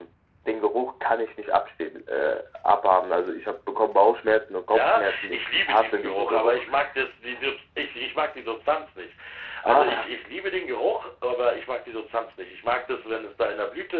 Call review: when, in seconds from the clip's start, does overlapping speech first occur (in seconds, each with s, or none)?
4.7 s